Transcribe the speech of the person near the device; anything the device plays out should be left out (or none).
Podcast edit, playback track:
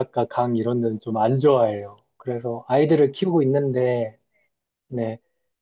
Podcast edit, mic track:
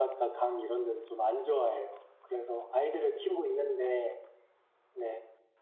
none